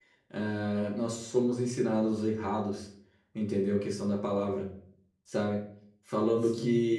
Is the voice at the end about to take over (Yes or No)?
No